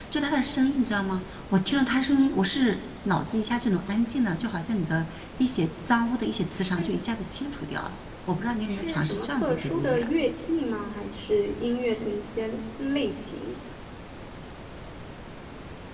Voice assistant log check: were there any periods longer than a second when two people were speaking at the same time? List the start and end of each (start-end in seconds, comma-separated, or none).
8.7-10.1